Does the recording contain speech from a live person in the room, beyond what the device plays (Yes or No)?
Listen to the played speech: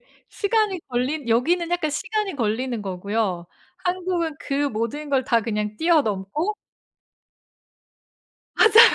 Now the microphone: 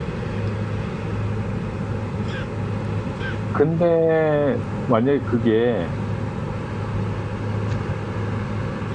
Yes